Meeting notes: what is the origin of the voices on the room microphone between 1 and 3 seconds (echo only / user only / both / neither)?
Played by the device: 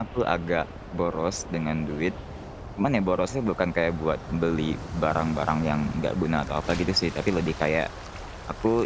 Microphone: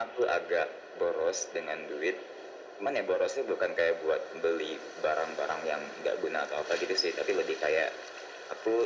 echo only